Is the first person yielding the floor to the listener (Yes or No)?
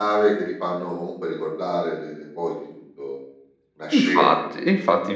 Yes